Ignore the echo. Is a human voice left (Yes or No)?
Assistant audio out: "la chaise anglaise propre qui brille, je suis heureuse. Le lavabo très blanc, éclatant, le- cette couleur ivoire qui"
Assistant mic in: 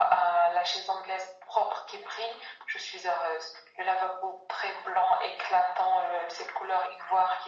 No